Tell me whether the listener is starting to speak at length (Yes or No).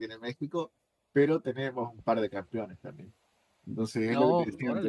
No